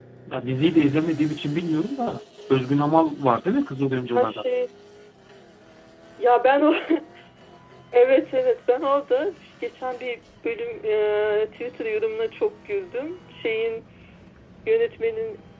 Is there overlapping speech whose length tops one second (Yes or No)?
No